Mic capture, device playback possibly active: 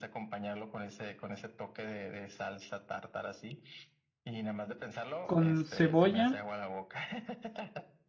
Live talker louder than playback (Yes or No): Yes